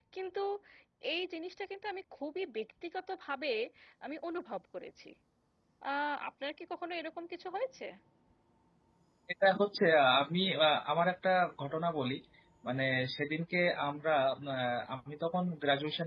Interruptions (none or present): none